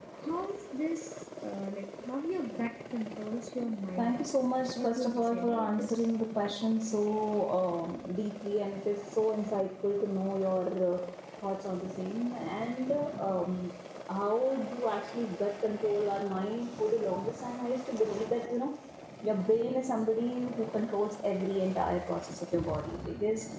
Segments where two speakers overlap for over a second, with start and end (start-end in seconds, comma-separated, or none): 4.8-6.1